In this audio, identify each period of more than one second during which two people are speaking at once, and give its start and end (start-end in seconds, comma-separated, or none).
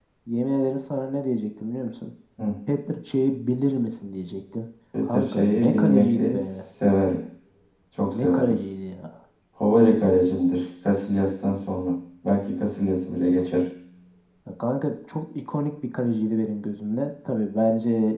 5.0-6.6